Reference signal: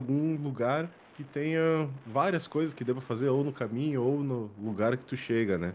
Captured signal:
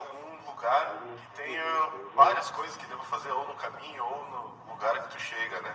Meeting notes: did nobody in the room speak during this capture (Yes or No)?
No